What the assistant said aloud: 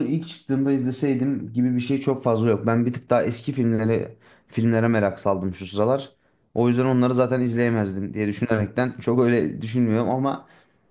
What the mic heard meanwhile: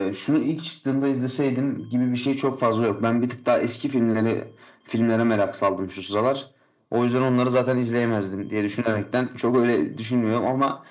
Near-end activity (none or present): none